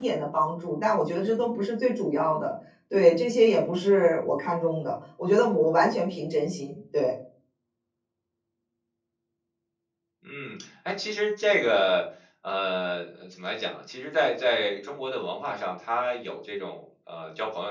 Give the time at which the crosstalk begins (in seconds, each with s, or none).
none